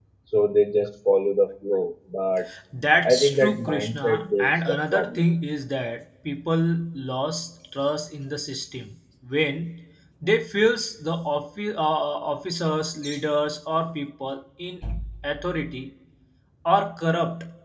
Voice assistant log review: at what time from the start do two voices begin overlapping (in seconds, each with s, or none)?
3.0 s